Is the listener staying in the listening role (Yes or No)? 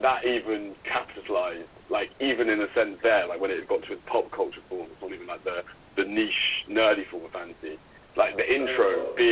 Yes